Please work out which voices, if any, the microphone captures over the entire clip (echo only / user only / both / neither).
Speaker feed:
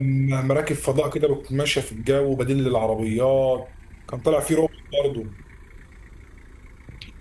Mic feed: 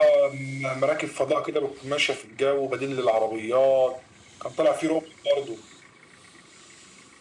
echo only